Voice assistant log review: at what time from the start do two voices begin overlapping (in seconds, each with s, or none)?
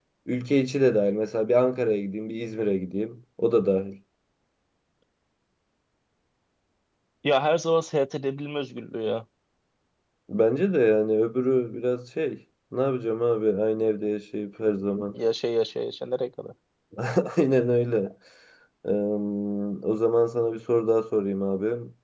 none